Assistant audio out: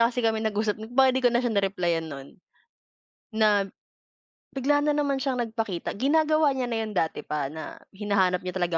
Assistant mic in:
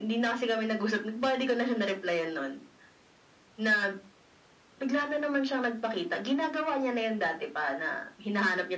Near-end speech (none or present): none